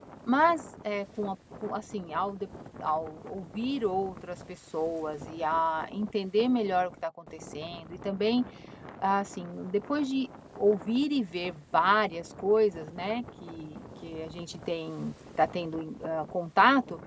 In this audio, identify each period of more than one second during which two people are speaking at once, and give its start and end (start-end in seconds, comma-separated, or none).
none